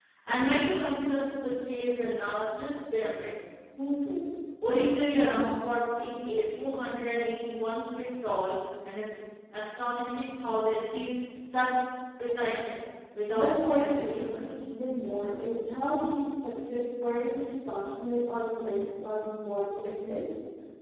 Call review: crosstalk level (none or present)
present